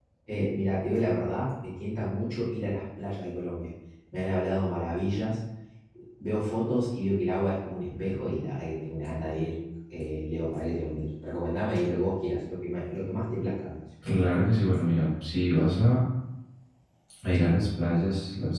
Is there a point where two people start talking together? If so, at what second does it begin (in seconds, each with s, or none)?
none